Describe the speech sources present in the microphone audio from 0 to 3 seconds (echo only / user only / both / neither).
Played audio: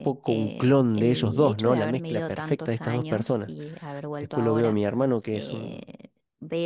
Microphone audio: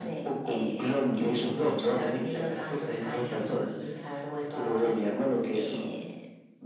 echo only